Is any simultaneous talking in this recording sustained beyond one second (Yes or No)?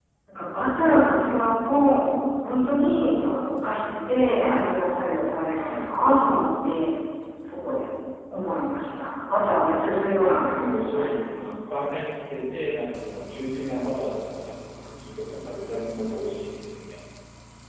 Yes